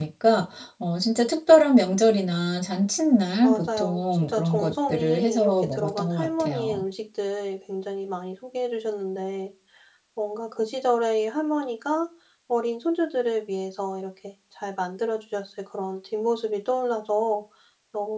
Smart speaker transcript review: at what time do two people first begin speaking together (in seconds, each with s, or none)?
3.4 s